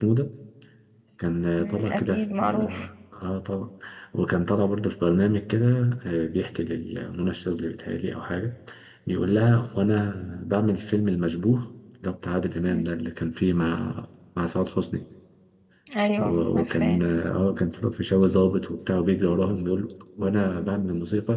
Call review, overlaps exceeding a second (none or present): present